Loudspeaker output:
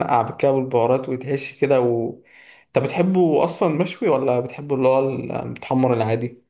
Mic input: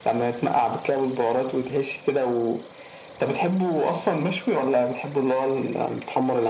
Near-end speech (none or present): none